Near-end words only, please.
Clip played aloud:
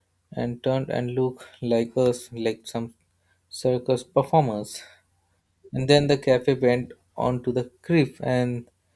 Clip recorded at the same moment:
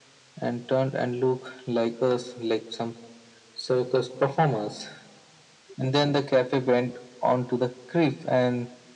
none

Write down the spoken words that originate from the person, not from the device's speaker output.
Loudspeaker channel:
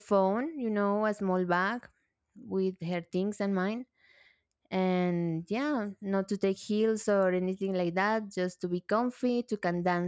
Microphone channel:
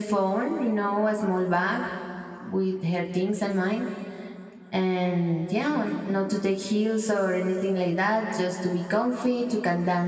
none

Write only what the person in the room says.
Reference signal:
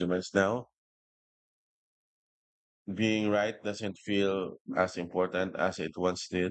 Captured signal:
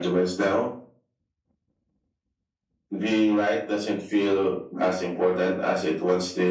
none

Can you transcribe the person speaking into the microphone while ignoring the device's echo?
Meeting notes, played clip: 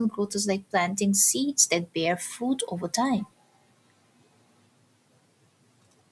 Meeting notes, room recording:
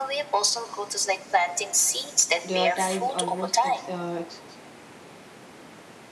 prioritized almost ex- uh, ex-

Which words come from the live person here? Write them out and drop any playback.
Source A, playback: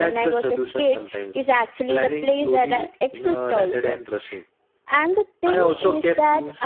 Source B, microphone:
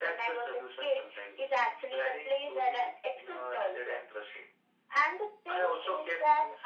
none

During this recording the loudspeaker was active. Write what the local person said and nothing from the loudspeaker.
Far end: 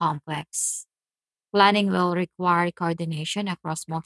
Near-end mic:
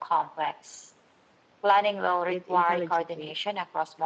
it, it intelligently.

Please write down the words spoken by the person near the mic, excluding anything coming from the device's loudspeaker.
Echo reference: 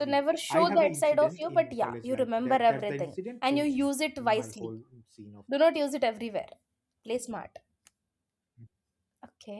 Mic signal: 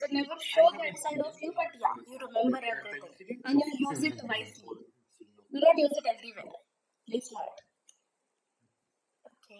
Mhm.

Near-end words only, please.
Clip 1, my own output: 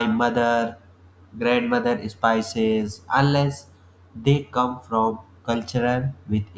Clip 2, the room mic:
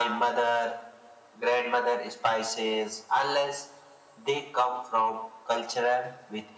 none

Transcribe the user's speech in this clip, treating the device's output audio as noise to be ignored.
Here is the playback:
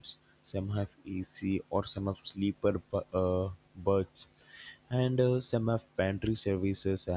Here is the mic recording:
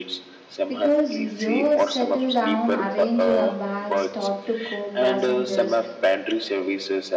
because you settle down, arrange your bags, talk to co passengers,

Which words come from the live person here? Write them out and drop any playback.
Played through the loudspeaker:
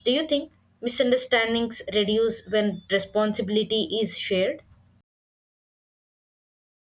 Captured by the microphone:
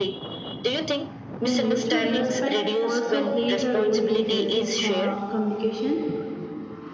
the mutual respect also plays a role in the healthy co- communication?

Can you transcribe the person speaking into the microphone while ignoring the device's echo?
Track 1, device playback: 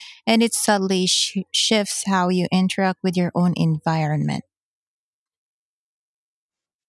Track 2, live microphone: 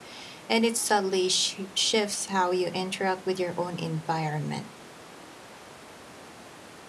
none

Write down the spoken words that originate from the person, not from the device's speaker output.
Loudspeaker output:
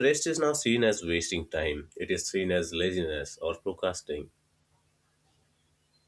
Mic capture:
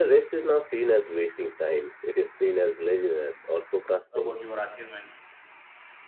about your achievements

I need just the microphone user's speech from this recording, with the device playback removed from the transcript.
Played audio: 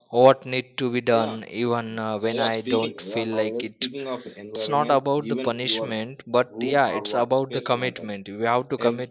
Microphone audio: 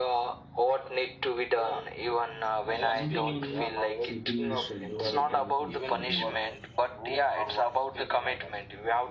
Another one is setting a shutdown routine for the night.

